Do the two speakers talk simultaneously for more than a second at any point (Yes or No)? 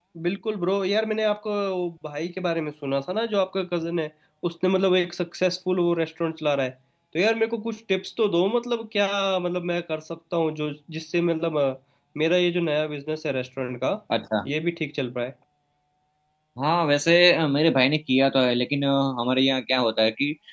No